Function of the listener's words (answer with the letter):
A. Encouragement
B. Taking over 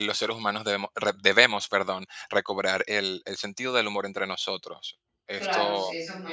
B